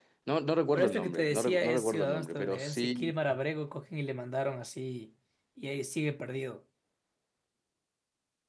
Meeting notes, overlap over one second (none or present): present